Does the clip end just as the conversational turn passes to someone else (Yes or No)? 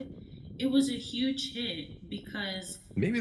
Yes